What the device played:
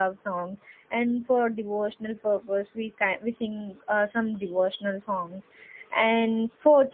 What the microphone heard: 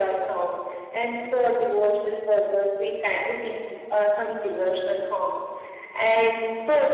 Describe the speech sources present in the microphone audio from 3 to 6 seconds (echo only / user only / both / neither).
echo only